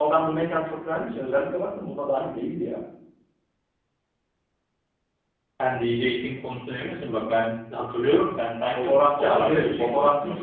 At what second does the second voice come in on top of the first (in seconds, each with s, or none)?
8.7 s